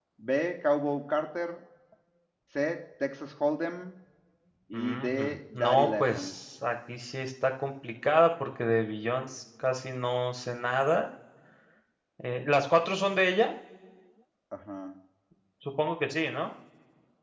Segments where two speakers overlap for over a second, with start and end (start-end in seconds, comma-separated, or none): 4.7-6.3